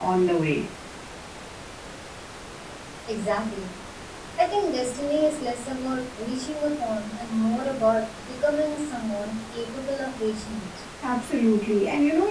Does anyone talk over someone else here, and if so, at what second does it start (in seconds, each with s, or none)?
none